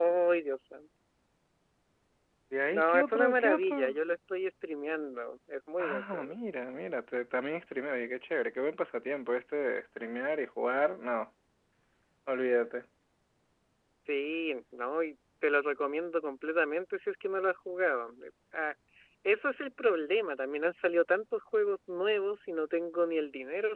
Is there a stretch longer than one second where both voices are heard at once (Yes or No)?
Yes